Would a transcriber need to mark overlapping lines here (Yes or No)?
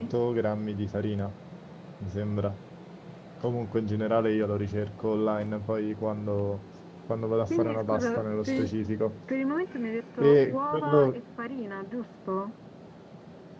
Yes